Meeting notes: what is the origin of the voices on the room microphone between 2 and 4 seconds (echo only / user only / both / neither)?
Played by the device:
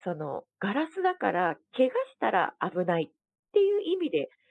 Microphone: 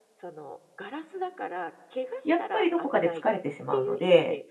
both